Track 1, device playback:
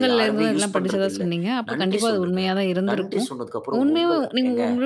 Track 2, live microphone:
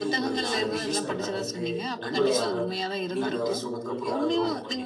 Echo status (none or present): present